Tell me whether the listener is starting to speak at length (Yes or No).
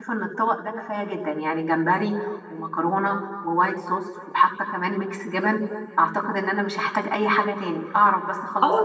Yes